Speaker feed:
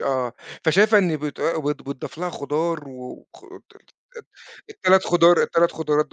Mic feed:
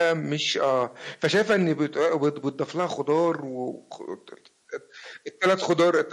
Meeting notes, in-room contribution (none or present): none